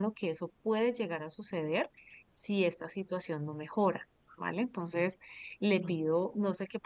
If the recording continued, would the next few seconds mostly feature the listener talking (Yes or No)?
No